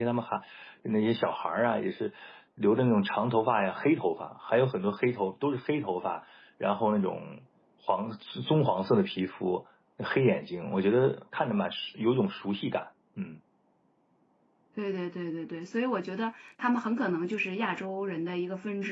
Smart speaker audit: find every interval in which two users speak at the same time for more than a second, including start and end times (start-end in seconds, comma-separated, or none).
none